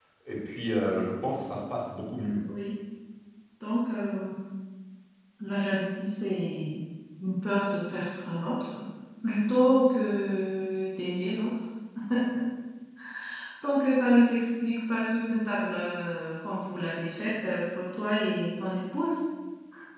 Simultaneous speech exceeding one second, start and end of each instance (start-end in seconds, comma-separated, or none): none